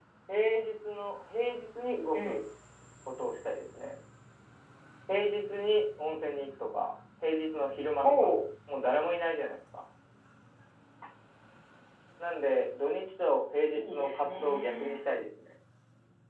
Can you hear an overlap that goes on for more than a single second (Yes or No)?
Yes